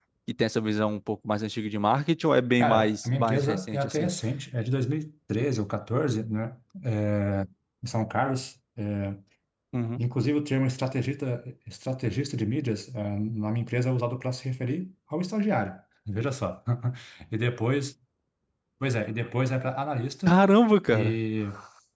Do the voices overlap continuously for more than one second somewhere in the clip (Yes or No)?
Yes